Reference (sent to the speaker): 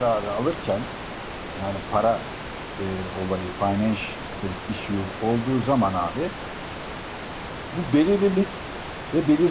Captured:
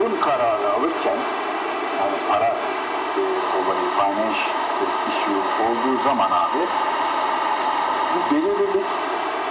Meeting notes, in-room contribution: none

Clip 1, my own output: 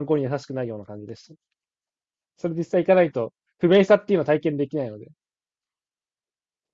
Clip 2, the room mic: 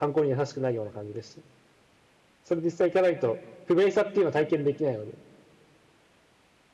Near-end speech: none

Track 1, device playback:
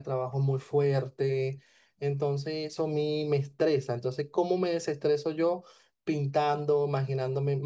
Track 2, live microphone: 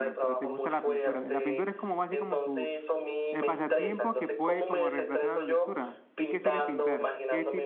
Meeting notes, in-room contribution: present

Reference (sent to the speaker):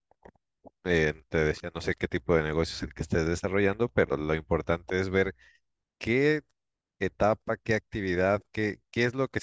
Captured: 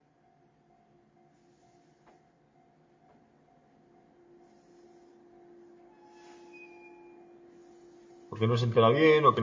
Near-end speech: present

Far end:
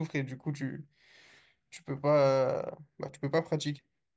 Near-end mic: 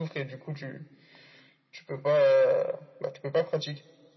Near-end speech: none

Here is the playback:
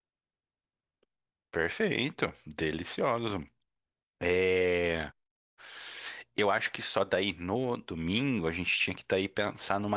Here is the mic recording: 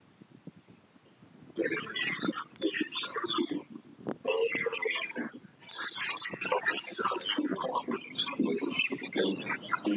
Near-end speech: none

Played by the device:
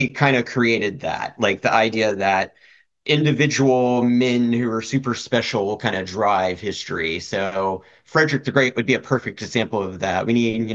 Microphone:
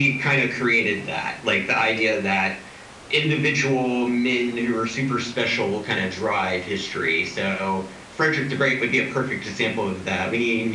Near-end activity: none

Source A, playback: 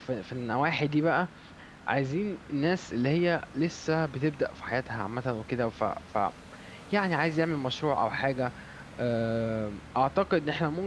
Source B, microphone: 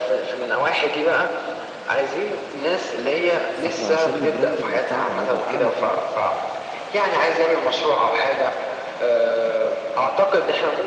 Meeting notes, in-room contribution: present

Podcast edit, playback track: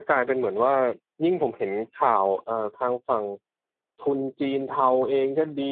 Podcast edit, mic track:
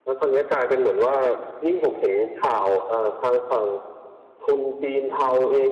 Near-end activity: none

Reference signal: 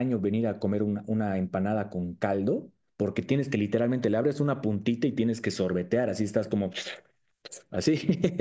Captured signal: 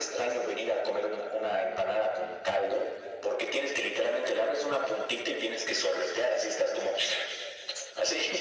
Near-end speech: none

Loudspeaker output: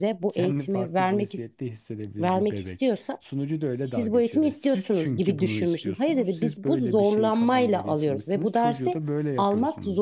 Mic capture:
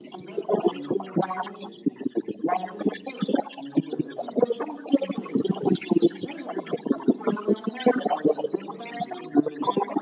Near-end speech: none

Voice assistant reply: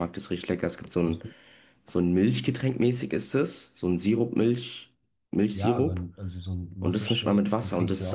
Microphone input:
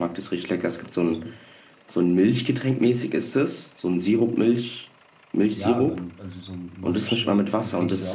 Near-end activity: none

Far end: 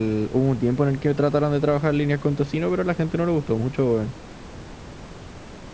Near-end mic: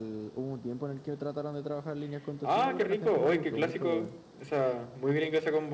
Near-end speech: present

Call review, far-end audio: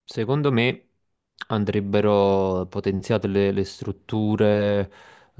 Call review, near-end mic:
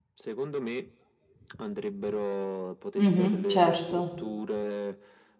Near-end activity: present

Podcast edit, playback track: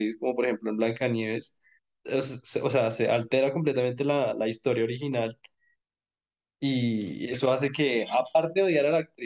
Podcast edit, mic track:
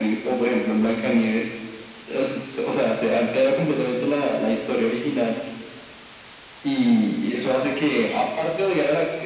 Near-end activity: none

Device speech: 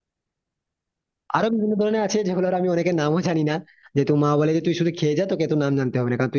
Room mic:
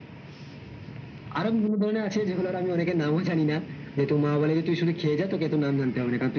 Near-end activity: none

